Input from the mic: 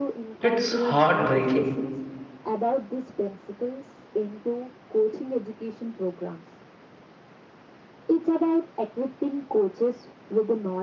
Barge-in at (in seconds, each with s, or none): 0.4 s